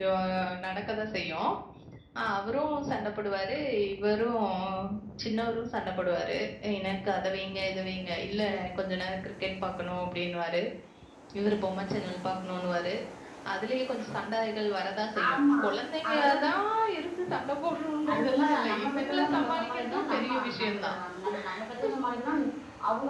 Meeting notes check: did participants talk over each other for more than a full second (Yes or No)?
Yes